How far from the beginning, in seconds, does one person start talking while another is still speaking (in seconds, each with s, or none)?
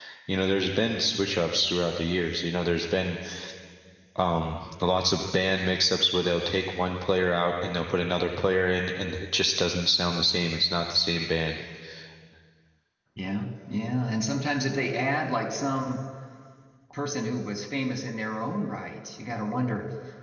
none